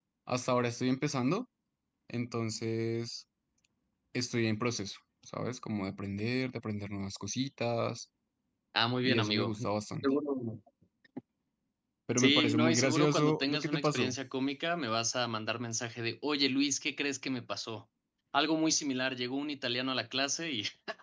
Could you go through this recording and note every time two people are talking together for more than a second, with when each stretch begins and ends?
12.2-14.1

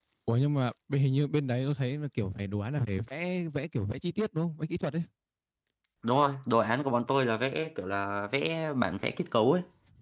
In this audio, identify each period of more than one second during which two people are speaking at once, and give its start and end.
none

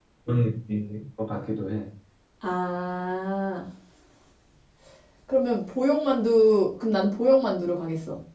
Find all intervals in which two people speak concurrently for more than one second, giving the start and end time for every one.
none

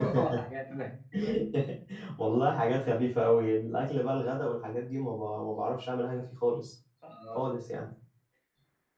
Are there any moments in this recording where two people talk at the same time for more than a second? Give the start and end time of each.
none

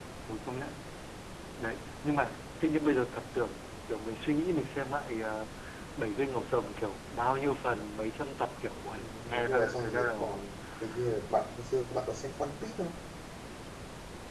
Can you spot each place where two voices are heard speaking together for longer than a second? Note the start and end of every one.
9.0-10.3

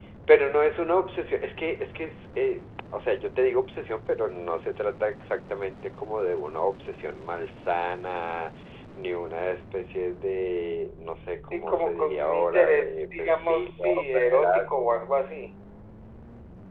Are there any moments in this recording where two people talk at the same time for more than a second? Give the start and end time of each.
11.5-15.0

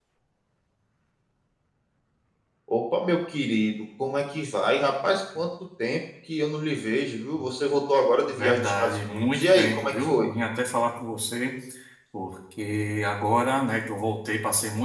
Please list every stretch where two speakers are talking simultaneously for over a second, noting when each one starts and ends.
8.3-10.3

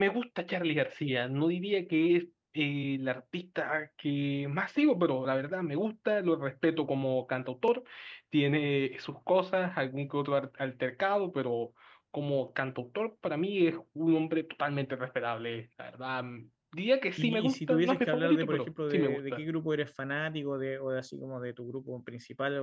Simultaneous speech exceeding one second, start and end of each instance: 17.2-19.4

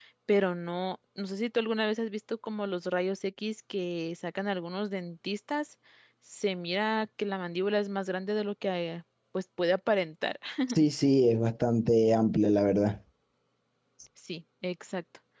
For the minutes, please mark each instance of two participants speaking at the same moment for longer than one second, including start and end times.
none

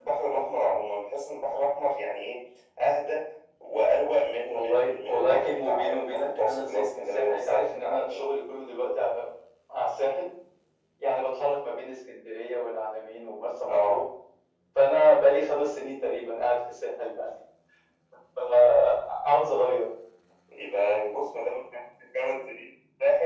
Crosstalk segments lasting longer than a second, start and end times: 4.4-8.3

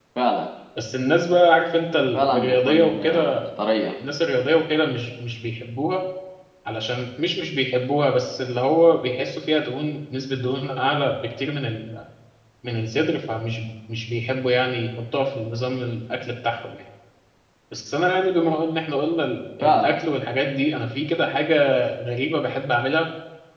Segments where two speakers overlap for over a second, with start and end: 2.1-3.3

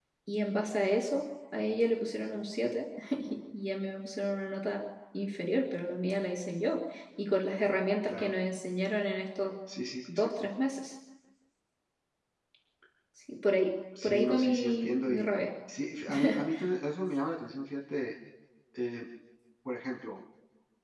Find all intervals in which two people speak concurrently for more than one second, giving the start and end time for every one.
14.0-15.2

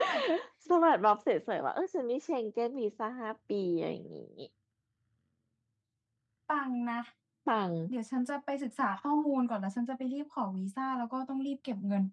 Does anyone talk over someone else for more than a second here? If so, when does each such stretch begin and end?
none

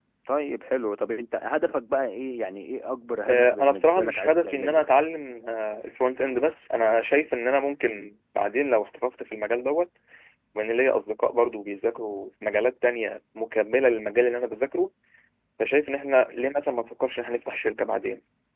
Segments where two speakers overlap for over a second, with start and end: 3.2-4.8

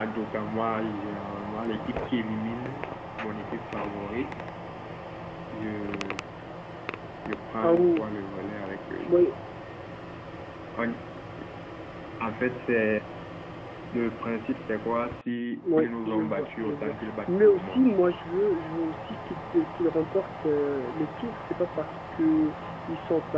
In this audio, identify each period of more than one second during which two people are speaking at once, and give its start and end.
15.8-17.9

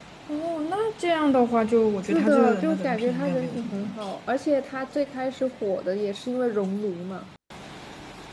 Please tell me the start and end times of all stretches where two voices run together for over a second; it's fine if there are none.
2.0-4.0

